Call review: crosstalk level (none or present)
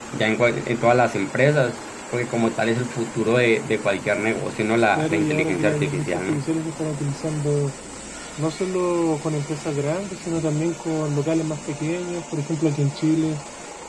present